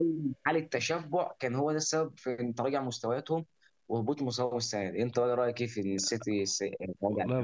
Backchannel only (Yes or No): No